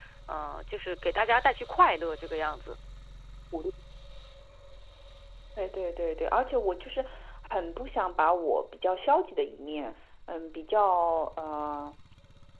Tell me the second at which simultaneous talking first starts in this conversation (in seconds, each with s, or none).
none